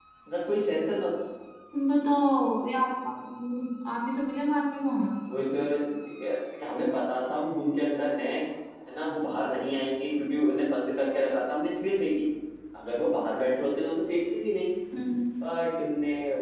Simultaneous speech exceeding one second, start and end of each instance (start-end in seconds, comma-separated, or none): none